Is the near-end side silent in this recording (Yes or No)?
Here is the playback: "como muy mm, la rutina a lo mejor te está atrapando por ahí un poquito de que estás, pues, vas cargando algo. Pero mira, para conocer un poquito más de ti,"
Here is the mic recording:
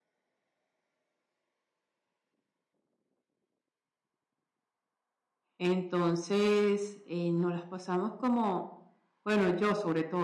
No